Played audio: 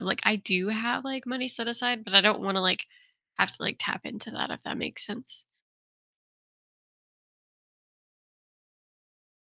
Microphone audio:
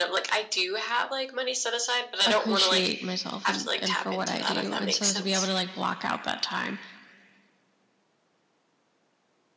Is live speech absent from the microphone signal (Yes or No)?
No